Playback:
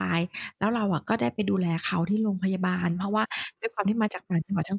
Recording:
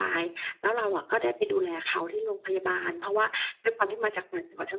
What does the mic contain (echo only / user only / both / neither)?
echo only